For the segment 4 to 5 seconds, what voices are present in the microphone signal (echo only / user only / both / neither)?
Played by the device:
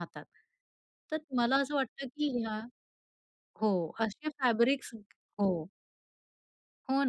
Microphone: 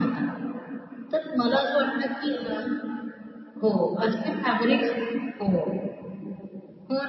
echo only